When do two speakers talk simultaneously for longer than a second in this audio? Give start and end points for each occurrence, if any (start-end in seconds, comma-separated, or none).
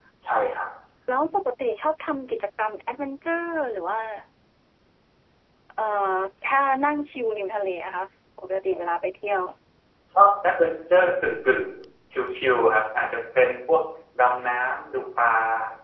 none